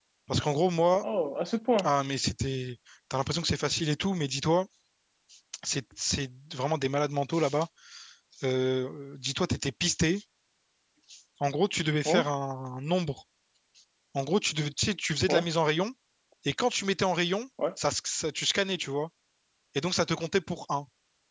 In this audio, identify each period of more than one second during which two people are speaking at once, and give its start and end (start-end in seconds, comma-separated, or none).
none